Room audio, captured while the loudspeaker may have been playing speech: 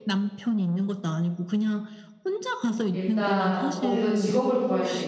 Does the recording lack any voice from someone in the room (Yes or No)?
No